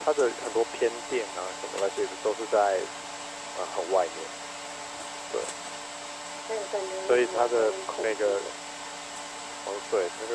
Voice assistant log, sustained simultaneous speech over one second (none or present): present